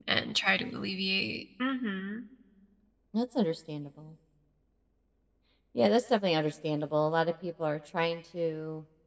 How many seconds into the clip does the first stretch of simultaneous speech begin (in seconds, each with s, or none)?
none